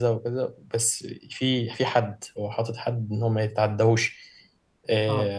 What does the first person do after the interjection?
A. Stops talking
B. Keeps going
B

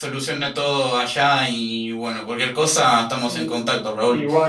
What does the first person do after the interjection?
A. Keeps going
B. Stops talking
B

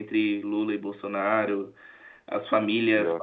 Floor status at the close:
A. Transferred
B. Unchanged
B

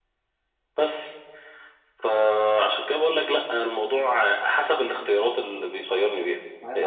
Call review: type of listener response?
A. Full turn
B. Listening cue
A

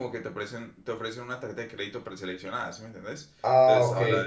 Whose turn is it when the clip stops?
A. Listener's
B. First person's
B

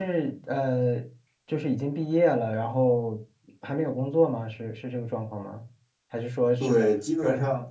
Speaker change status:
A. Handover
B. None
A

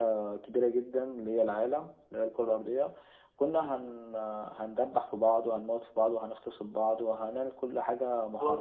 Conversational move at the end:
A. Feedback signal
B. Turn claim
B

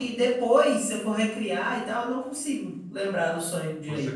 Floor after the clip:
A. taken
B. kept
A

